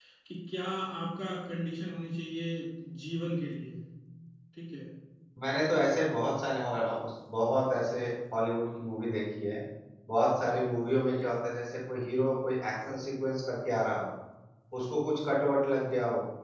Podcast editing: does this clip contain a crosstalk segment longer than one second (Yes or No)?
No